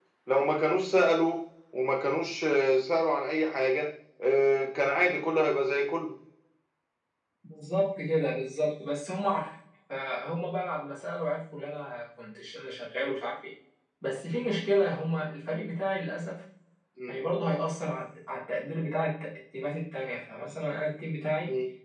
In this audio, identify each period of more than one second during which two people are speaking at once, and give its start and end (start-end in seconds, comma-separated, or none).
none